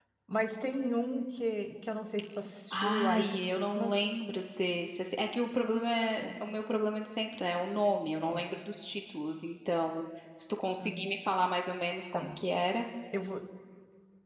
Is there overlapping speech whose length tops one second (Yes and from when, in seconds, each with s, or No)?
Yes, from 2.7 s